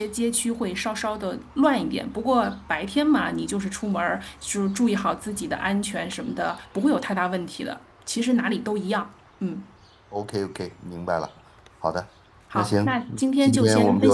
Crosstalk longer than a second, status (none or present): present